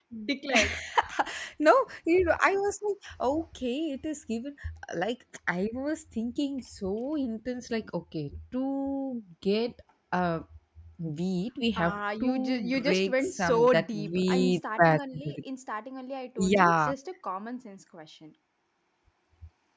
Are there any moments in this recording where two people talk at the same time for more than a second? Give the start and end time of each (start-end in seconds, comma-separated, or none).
11.8-15.4